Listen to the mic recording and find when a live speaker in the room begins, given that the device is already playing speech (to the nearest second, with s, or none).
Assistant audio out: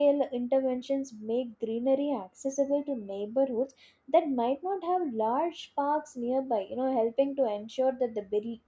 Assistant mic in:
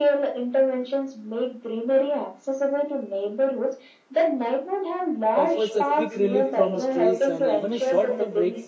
5 s